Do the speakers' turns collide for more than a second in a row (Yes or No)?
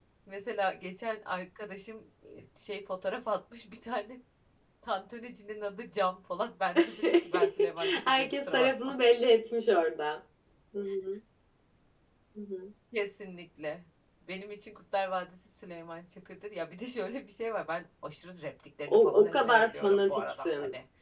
Yes